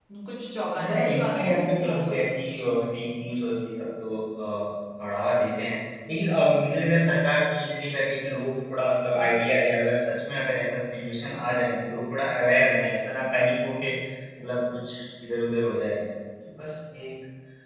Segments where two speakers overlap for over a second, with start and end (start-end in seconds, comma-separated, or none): 0.8-2.3